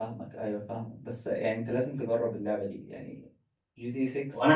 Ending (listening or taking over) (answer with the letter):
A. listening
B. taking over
B